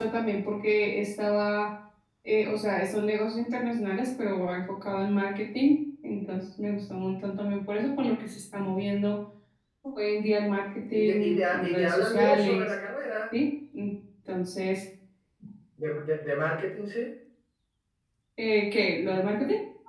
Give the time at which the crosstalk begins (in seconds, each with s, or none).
10.9 s